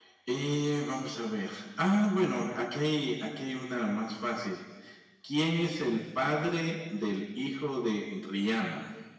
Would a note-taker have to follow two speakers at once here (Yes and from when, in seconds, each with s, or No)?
No